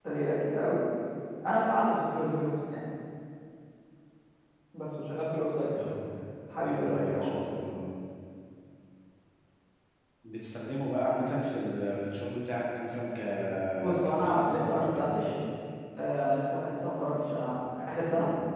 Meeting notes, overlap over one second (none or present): present